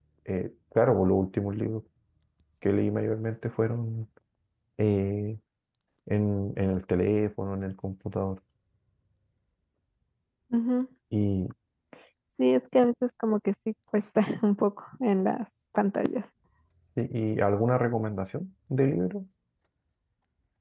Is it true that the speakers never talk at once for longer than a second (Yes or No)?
Yes